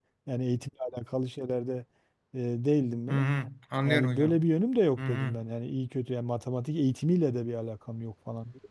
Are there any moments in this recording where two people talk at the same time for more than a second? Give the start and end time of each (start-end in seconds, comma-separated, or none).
none